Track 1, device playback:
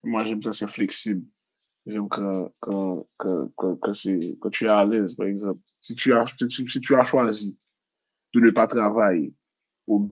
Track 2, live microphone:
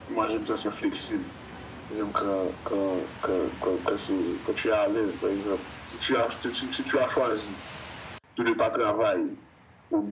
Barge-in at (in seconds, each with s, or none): none